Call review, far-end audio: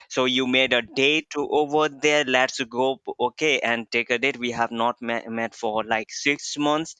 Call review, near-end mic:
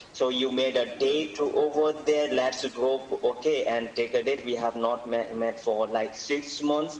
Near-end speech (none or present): none